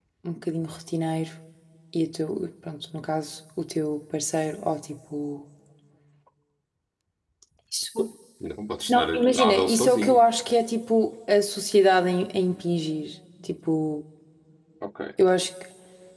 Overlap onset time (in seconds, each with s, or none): 8.9 s